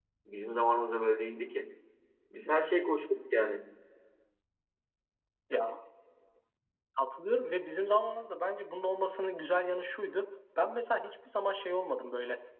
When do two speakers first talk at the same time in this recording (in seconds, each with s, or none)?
none